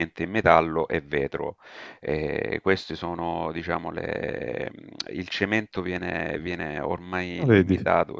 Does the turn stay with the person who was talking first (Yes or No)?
Yes